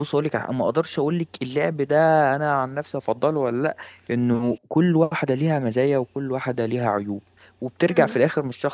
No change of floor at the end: Yes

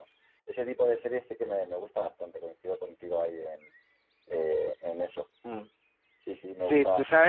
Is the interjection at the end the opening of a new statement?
Yes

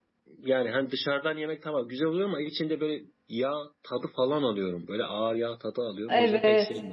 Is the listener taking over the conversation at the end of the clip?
Yes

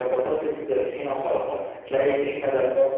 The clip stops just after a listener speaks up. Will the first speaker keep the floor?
Yes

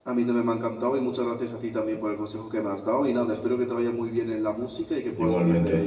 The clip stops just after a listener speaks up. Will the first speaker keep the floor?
No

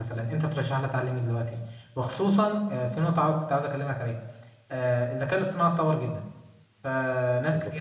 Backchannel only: Yes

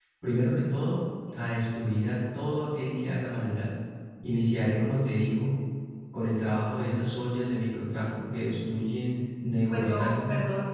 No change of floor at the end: No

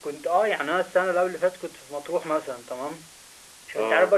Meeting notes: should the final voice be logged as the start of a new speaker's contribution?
No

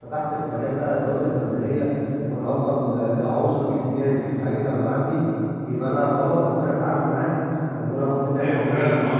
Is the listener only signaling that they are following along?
No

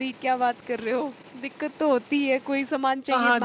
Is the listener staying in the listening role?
No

